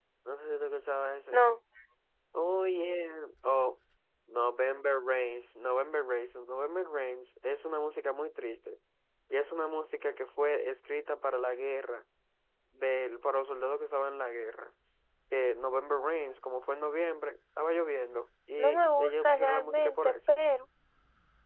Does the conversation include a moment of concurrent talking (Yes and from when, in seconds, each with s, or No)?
Yes, from 18.6 s